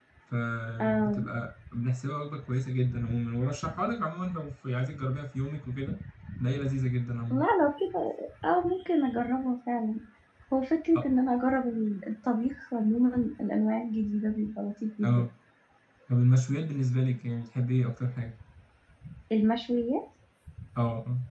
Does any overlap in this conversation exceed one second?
No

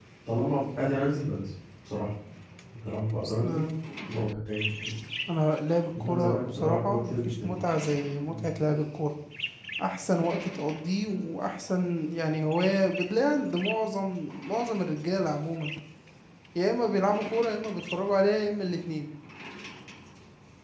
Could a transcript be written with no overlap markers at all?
No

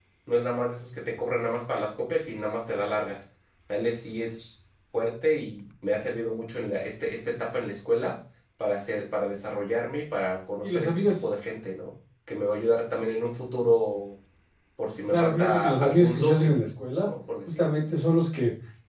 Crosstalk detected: Yes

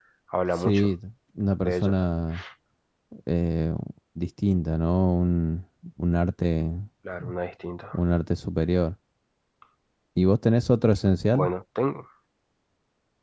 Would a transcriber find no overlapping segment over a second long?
Yes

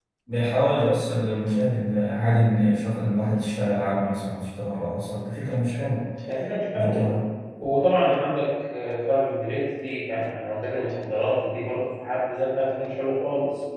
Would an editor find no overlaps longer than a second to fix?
Yes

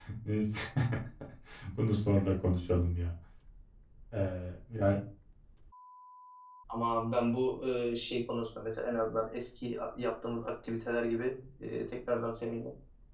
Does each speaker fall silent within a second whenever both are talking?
Yes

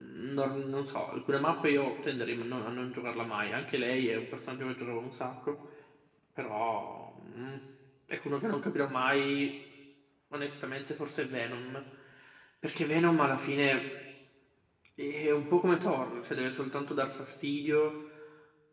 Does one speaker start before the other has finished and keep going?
No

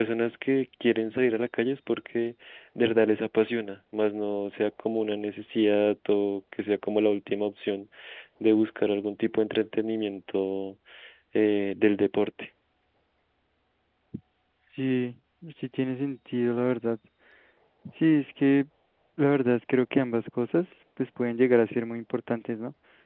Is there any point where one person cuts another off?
No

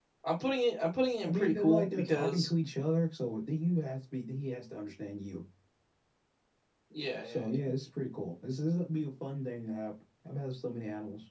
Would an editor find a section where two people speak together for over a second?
Yes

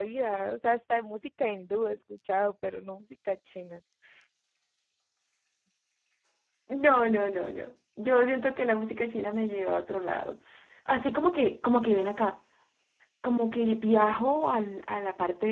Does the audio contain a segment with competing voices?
No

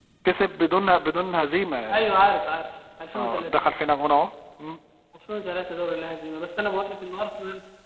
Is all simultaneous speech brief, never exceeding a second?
Yes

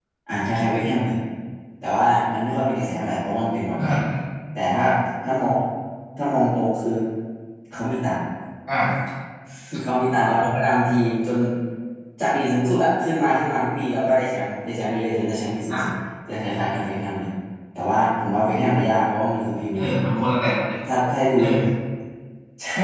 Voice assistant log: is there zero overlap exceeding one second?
Yes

